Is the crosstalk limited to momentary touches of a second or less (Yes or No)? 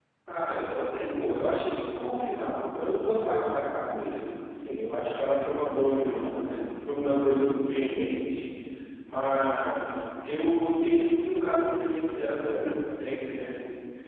Yes